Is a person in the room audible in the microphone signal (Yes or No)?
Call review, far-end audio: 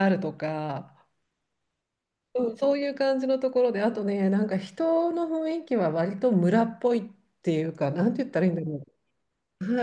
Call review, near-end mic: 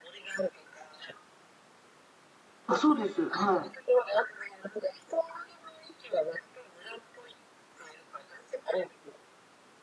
Yes